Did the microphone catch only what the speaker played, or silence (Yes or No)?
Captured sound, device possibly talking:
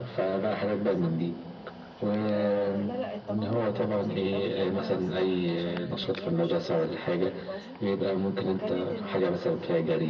No